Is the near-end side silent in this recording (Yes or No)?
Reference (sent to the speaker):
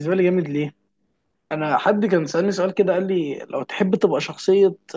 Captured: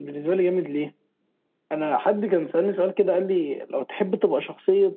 Yes